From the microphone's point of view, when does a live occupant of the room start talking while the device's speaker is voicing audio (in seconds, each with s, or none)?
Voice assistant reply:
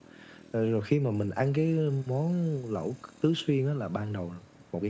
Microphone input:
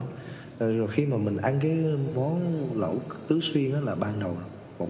none